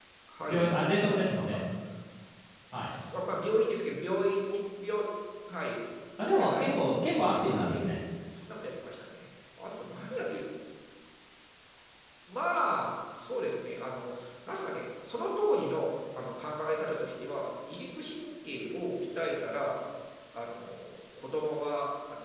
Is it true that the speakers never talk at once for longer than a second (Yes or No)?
Yes